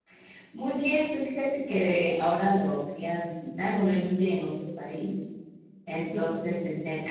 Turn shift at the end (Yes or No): No